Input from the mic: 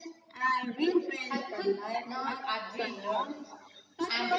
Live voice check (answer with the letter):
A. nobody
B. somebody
B